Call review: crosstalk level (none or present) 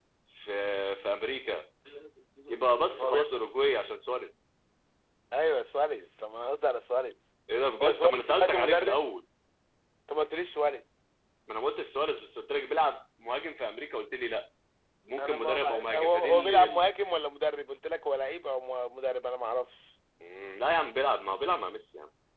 present